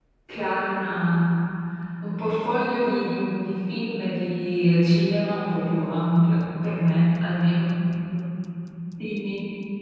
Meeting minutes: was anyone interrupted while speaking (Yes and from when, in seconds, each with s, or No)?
No